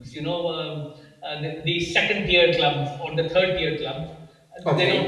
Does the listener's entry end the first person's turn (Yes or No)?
No